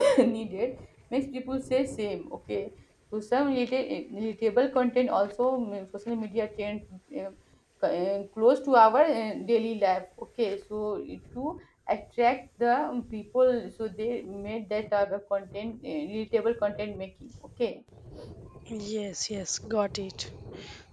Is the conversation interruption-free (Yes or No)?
Yes